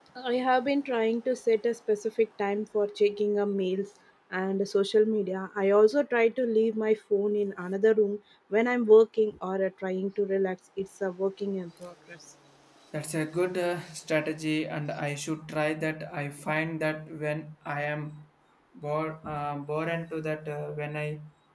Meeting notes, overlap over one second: none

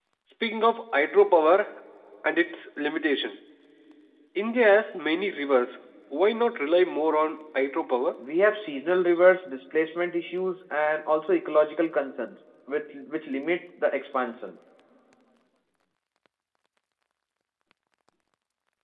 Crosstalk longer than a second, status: none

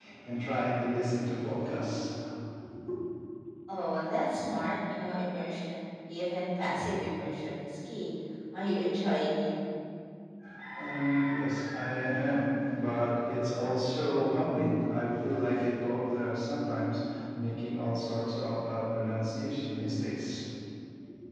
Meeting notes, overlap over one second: none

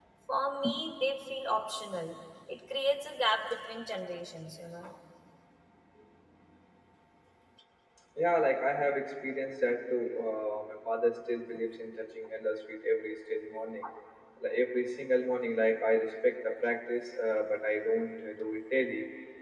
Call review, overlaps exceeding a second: none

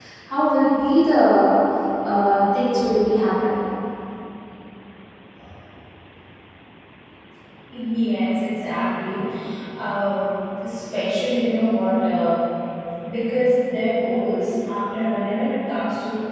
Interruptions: none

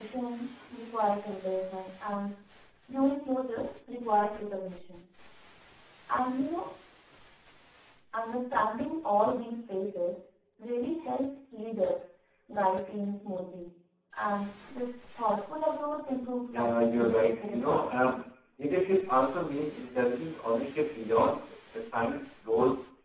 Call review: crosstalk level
present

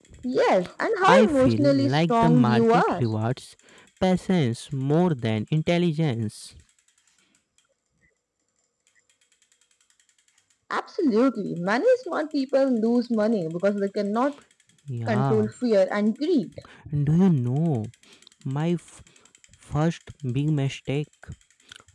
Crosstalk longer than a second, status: present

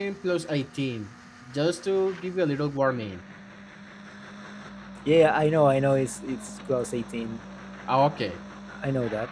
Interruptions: none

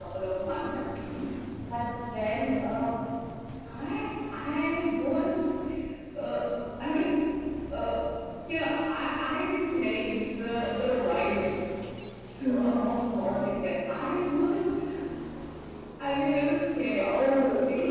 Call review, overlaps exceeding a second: none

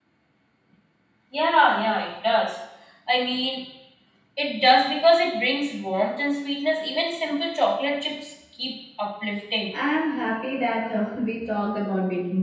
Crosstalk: none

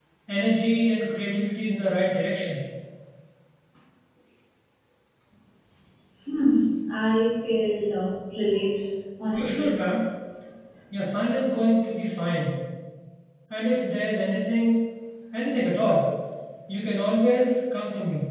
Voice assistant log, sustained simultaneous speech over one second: none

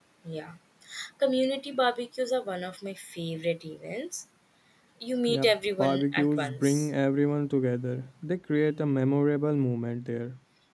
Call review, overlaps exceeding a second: present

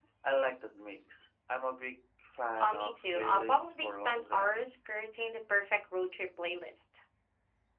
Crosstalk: present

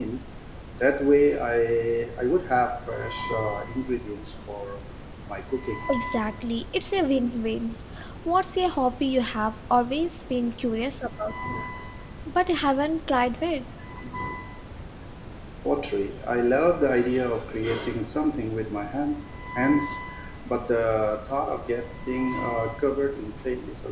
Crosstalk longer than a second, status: none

